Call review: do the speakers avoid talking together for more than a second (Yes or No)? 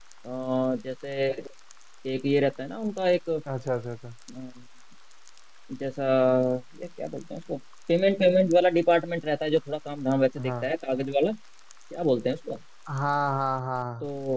Yes